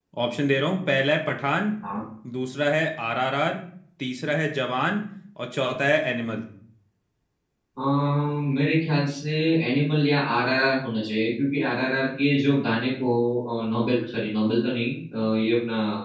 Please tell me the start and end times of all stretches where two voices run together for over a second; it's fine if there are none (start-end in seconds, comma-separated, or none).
none